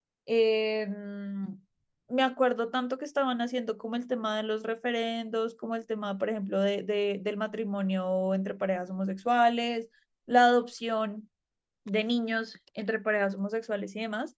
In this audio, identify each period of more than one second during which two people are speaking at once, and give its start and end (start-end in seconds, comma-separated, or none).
none